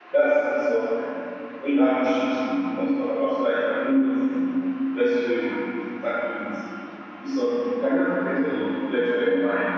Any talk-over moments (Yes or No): No